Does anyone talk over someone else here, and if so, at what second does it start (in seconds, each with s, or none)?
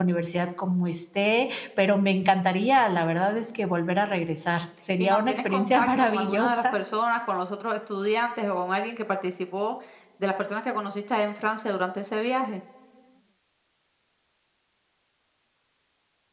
5.0 s